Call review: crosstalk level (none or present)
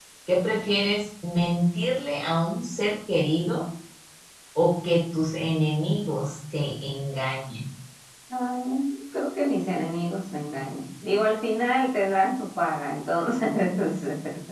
none